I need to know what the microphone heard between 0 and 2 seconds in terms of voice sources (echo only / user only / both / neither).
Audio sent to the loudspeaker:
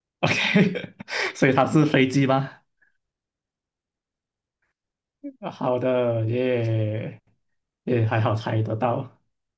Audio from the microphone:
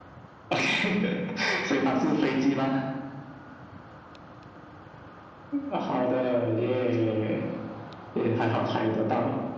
echo only